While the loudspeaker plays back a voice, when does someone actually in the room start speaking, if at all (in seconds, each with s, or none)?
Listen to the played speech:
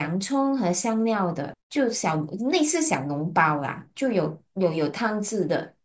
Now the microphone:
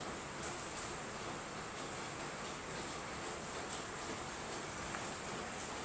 none